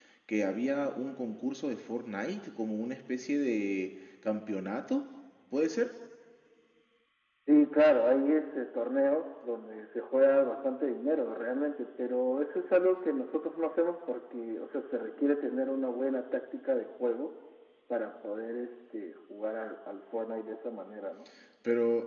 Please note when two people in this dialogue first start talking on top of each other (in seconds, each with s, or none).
none